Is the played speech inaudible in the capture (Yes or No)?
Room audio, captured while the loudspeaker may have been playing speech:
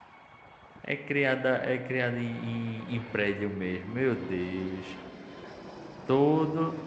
Yes